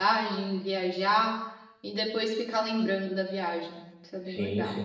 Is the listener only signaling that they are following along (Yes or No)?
No